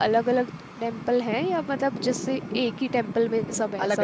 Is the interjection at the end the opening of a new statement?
Yes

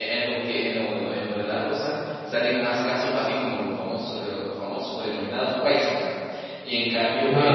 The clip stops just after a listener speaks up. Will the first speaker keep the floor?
Yes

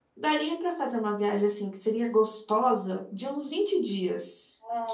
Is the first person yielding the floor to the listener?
Yes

